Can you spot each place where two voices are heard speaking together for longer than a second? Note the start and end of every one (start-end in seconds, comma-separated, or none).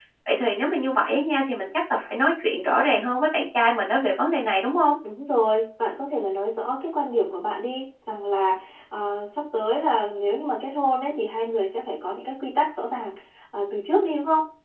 none